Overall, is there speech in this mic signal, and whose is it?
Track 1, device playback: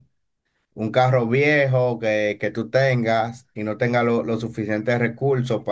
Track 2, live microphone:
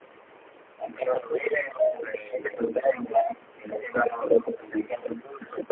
echo only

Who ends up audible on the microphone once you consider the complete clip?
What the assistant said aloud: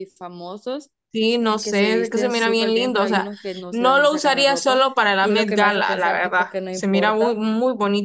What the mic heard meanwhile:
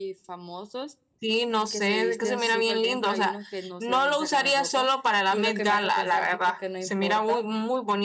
echo only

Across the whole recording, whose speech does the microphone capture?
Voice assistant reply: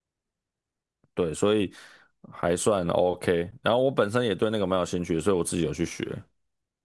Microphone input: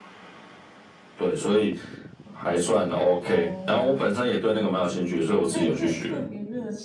both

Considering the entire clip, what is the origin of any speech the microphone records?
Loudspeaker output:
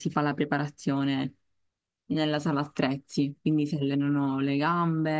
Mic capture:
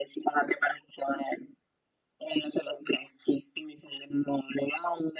echo only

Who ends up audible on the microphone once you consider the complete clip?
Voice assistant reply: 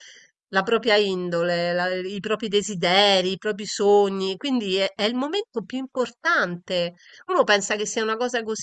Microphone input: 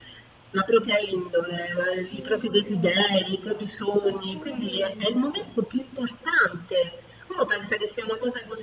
both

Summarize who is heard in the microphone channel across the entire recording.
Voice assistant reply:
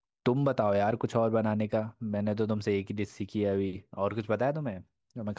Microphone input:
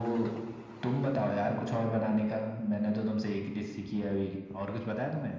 echo only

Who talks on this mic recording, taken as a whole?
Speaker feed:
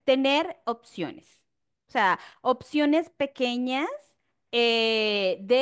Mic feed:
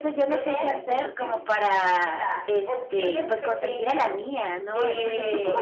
both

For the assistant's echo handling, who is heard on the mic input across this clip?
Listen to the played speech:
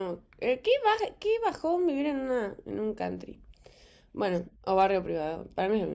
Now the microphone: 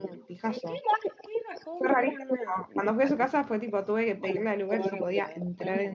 both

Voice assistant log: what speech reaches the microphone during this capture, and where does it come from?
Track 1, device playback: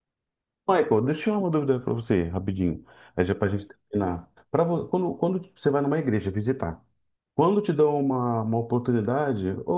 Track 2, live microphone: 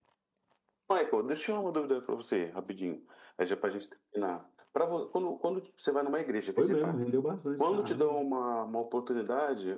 both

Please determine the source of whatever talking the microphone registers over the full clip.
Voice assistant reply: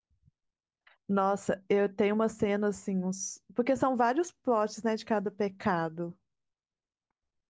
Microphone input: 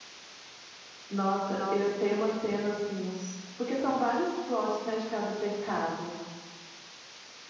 both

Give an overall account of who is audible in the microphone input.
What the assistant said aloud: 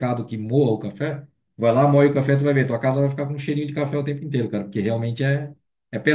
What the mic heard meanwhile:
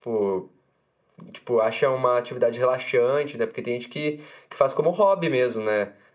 user only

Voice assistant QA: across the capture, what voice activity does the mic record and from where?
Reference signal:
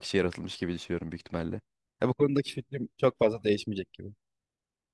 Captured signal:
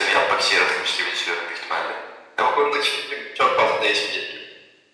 echo only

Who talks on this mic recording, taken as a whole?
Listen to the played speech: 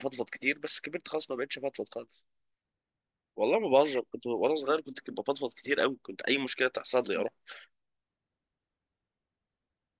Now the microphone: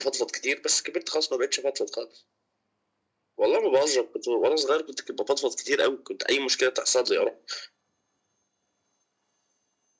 echo only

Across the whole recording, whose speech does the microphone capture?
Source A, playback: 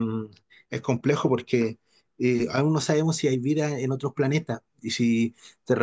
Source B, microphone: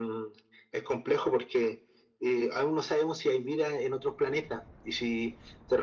echo only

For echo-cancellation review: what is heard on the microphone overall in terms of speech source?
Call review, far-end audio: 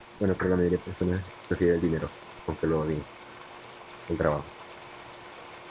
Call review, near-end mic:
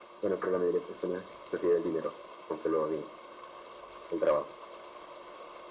echo only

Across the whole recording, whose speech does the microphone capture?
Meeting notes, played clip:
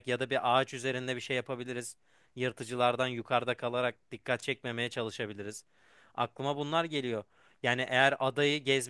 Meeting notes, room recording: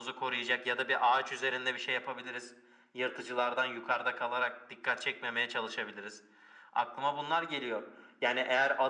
echo only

